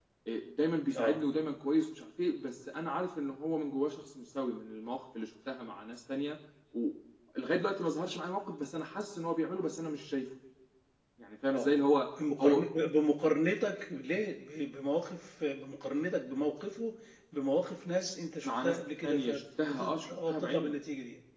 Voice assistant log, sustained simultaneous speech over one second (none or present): present